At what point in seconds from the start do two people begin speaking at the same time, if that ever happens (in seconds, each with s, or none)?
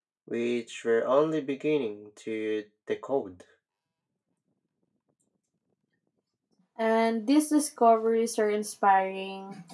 none